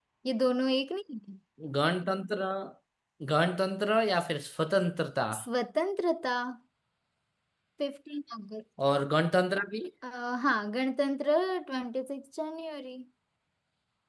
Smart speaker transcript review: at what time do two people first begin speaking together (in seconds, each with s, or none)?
none